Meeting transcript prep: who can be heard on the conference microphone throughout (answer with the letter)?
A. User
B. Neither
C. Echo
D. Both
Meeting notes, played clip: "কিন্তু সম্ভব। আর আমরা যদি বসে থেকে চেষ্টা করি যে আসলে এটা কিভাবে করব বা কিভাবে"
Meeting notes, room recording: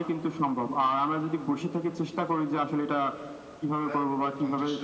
D